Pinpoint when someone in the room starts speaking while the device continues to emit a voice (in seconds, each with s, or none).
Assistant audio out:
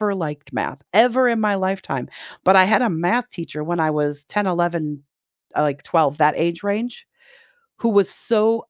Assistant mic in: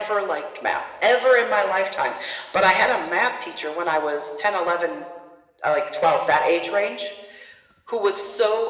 none